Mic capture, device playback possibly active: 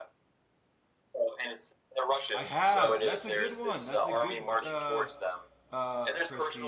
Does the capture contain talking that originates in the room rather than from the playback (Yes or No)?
Yes